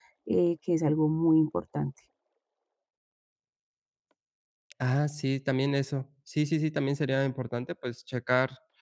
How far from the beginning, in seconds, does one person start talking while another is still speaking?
none

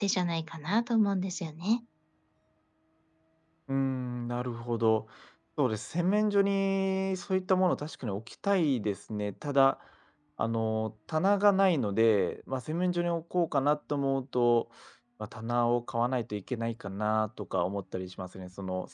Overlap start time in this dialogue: none

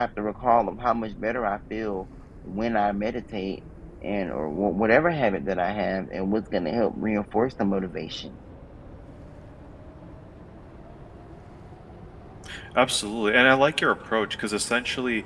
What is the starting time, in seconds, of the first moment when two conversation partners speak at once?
none

